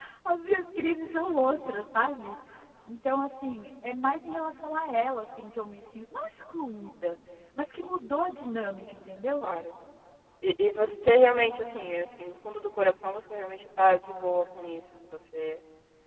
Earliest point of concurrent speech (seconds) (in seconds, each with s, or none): none